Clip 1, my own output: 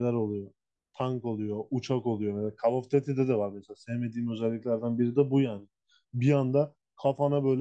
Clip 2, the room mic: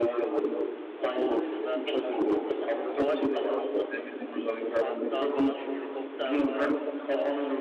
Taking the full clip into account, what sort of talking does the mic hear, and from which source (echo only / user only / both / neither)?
both